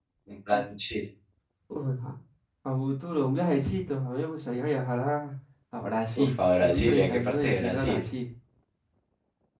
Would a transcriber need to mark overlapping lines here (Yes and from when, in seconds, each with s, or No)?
Yes, from 6.2 s